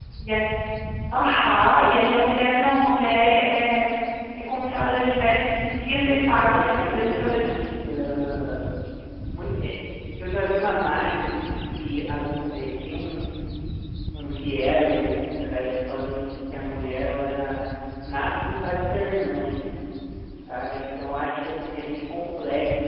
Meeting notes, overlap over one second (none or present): present